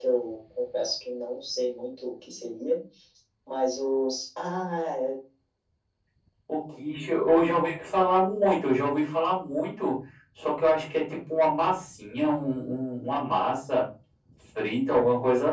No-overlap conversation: Yes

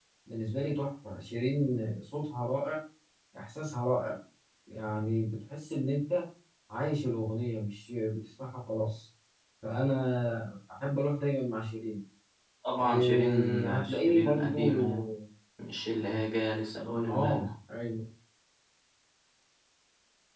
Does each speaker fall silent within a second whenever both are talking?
No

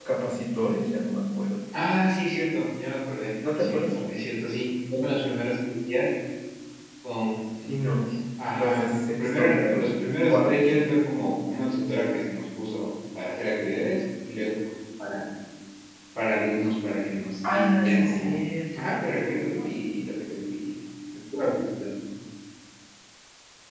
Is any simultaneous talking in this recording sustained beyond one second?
Yes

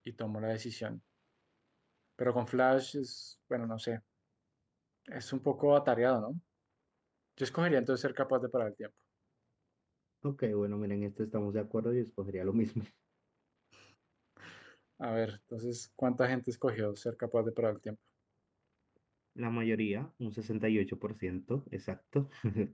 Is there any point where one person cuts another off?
No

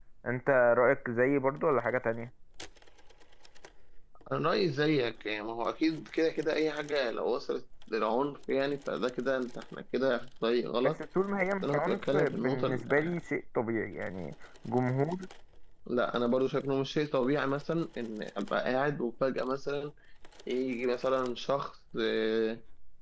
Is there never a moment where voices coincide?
No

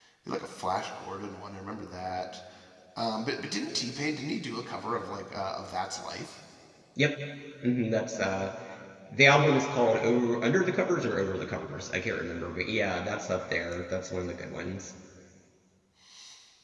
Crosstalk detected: No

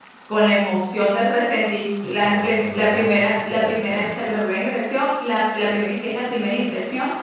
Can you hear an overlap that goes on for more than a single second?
Yes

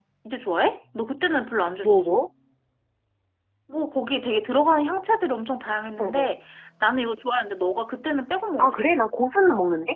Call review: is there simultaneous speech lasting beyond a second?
No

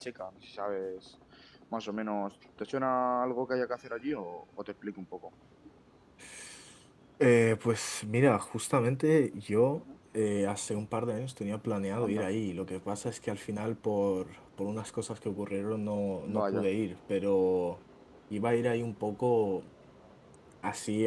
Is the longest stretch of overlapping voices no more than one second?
Yes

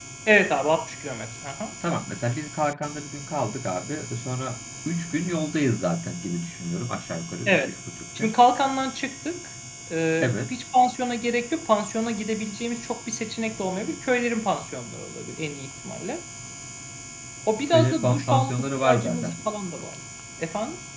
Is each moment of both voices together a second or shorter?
No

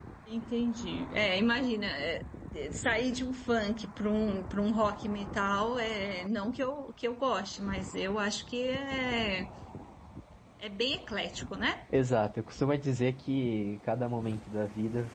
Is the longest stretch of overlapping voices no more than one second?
Yes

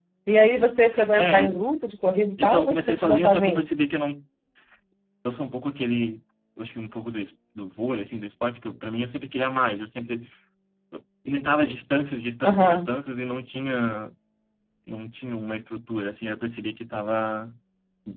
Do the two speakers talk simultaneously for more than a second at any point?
Yes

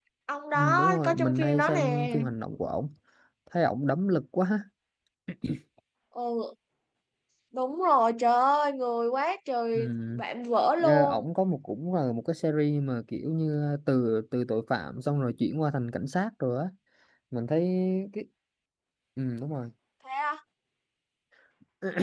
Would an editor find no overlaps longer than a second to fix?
No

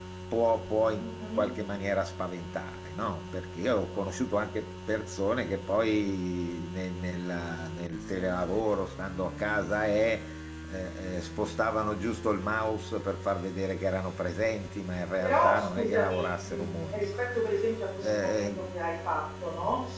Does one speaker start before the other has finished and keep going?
Yes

